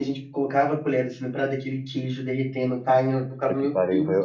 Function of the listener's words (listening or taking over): taking over